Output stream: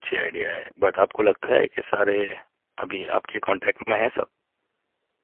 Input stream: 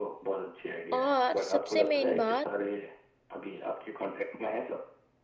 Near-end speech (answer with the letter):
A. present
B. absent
A